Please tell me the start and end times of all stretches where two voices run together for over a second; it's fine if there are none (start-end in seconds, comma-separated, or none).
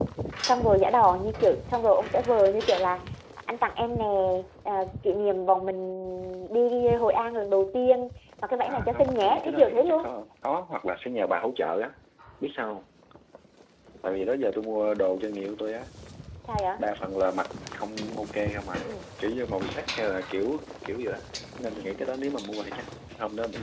8.7-10.1